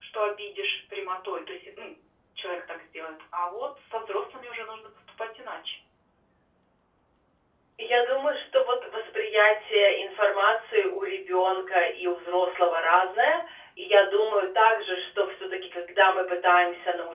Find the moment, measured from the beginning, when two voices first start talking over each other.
none

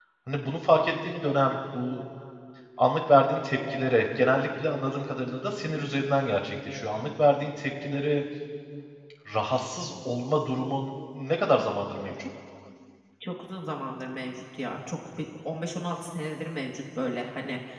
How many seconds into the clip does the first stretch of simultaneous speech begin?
none

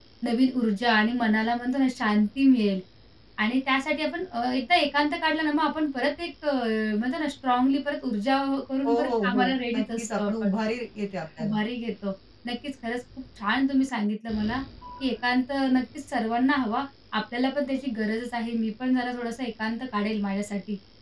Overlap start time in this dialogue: 8.8 s

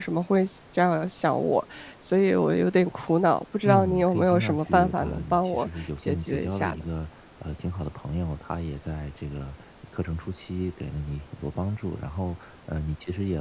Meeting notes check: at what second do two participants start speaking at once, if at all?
3.6 s

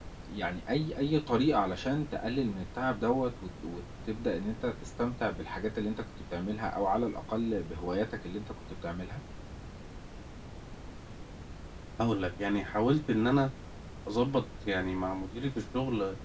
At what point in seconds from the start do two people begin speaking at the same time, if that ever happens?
none

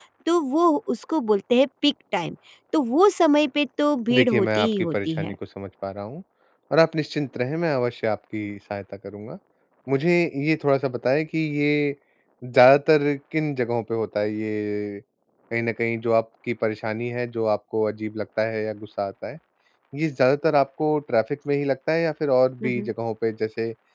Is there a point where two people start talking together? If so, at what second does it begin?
4.1 s

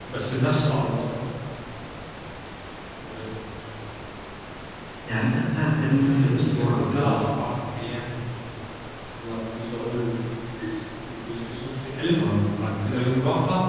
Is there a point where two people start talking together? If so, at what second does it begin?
6.0 s

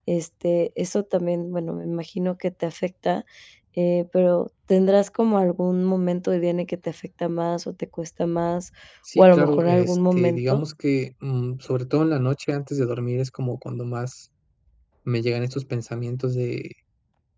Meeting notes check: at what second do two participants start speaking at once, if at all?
9.2 s

